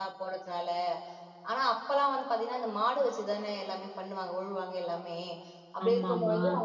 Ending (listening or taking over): listening